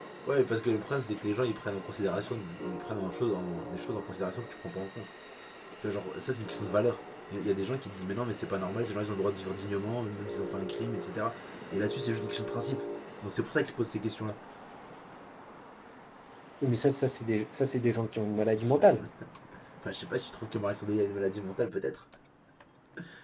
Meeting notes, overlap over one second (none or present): none